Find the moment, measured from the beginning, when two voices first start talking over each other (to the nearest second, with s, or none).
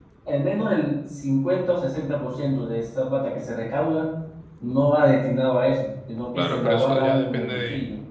6 s